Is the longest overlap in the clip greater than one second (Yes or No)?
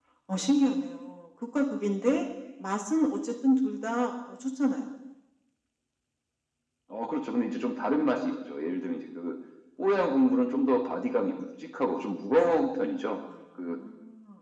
No